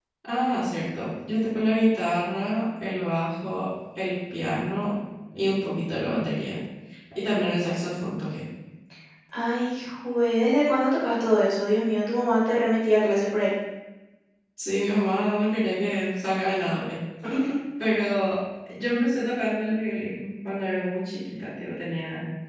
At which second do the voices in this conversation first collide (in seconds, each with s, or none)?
none